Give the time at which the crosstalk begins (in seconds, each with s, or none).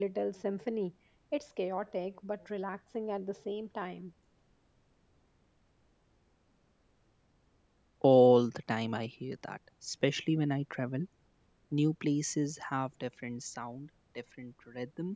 none